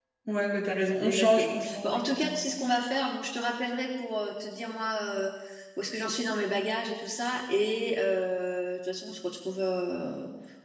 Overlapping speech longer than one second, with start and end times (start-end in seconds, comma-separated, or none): 1.0-2.3